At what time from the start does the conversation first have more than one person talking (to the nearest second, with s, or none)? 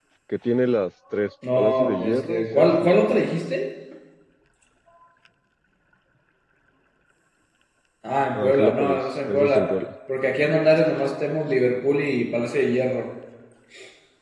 2 s